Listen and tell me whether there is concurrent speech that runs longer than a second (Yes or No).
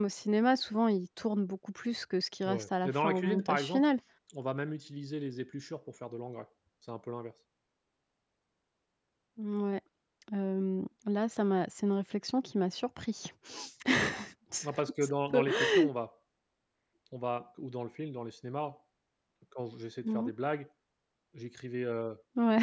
Yes